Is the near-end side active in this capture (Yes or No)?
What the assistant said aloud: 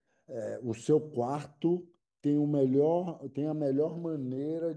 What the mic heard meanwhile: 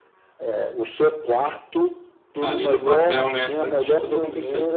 Yes